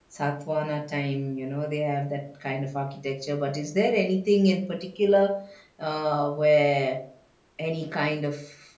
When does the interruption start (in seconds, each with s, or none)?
none